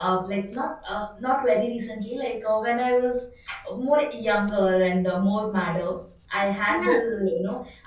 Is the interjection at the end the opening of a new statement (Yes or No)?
No